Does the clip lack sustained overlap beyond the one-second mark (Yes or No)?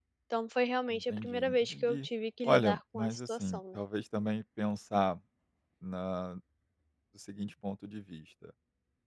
No